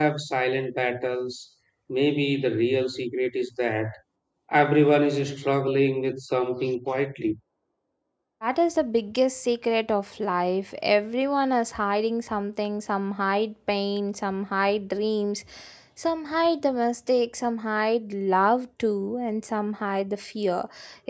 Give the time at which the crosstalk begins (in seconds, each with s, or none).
none